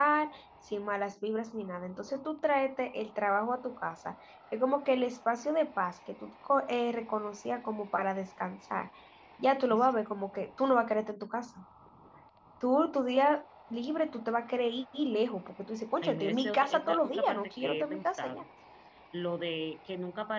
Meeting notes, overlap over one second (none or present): present